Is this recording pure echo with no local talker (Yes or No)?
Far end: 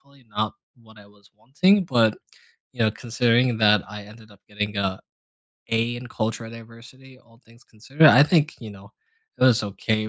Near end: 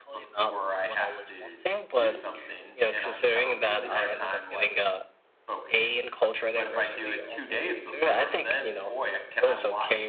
No